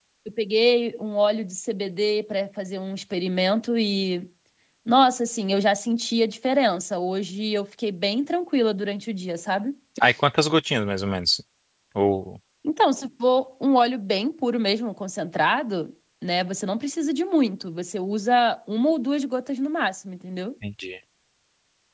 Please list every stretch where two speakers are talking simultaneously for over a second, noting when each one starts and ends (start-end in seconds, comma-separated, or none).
none